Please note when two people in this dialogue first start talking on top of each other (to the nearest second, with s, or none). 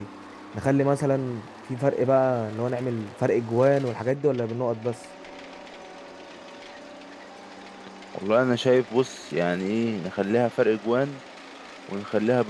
none